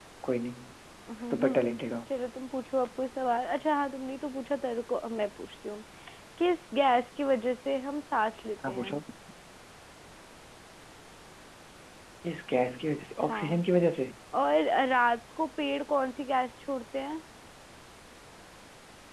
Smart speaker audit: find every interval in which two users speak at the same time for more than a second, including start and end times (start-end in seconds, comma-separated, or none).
none